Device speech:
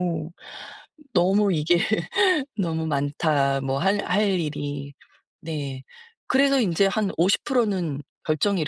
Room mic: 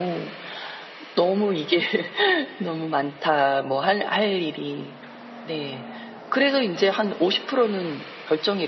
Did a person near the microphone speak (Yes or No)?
No